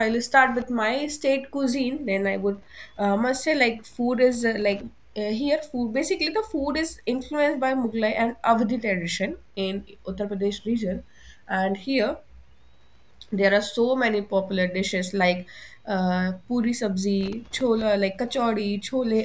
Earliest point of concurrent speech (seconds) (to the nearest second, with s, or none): none